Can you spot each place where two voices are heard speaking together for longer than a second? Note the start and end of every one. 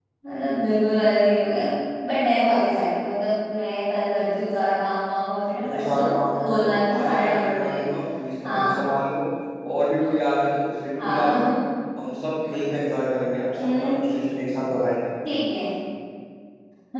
6.4-7.9

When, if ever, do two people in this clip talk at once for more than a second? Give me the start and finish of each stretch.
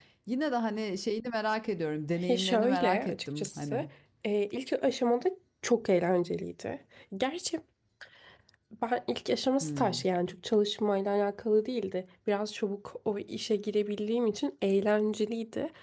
2.3-3.9

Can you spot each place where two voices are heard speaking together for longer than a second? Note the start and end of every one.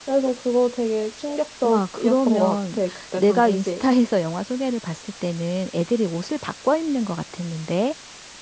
1.6-3.8

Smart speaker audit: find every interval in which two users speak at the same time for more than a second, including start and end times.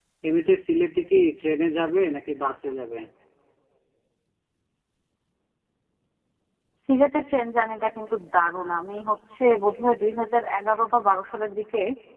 none

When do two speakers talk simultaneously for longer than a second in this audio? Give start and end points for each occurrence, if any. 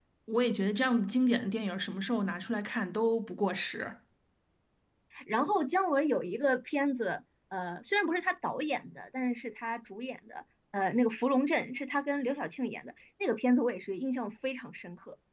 none

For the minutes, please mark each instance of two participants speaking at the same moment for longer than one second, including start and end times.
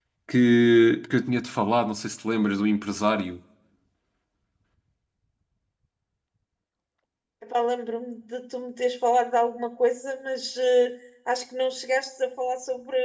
none

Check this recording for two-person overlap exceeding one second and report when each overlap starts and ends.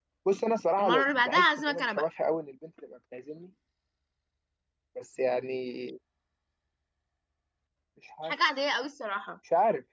0.8-2.1

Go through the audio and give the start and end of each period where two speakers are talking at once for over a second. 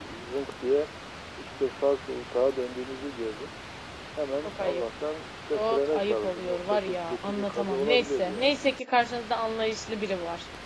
5.5-8.6

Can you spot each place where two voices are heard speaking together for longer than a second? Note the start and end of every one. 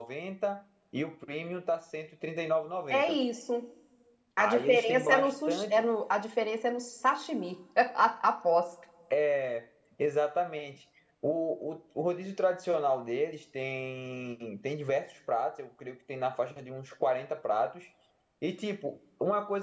4.4-5.8

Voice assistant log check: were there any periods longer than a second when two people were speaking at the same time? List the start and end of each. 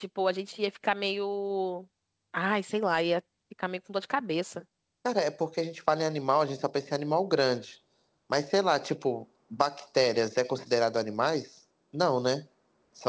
none

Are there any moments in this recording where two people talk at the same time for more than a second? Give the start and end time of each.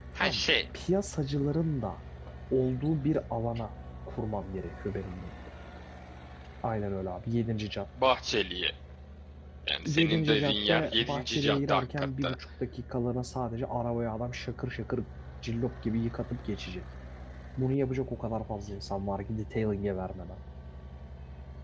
9.8-12.4

